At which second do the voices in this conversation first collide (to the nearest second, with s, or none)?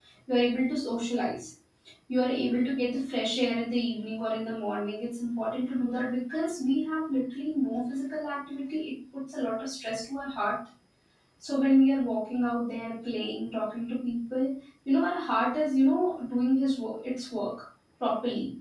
none